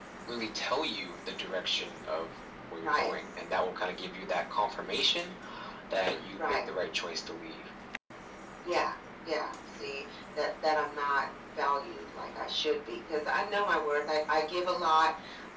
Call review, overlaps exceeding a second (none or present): none